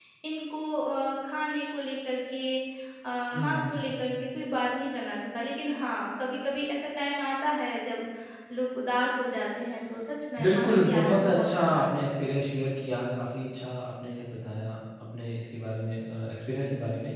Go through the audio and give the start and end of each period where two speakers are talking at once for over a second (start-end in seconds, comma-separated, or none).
10.4-12.1